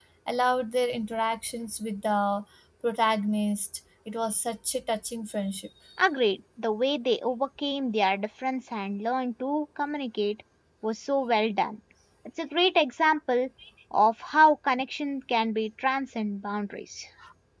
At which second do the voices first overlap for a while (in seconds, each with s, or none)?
none